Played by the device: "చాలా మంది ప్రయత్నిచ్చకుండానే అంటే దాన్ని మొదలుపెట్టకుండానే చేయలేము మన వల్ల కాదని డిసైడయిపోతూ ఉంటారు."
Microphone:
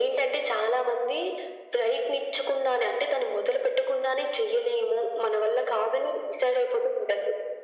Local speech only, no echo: none

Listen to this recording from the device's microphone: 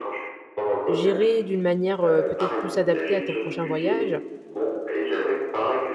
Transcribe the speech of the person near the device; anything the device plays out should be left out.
gérer d'une manière, heu, peut-être plus adaptée à ton prochain voyage,

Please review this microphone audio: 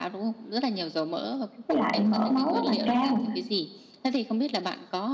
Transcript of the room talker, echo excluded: với lại mỡ máu rất là cao."

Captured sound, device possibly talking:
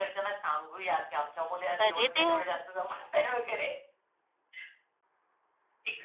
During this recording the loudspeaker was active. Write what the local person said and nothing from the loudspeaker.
अरे! देवा.

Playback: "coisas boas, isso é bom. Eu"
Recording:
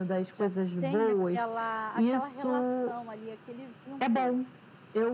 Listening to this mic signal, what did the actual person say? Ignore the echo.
Já tem aquela aquela relação ali, aquele vínculo.

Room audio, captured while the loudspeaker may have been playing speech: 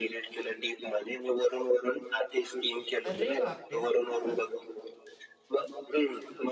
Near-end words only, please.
अरे बापरे! हां.

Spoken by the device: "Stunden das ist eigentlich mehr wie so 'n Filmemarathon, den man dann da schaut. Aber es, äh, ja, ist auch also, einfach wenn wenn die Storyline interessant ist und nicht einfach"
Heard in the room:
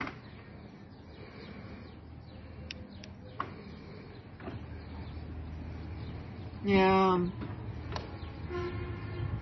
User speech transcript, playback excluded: Ja.

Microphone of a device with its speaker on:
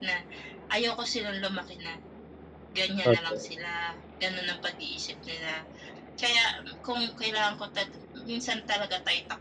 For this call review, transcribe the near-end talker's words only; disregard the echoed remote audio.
Totoo.

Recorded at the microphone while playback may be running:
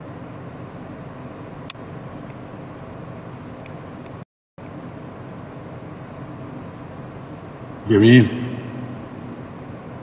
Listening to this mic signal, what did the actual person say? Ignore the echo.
جميل.

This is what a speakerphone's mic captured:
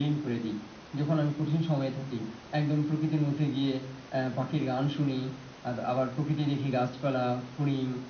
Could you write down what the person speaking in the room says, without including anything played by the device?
none

